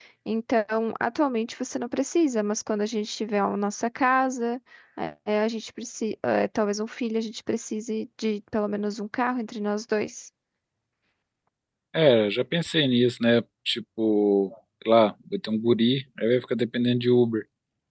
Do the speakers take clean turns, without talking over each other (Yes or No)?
Yes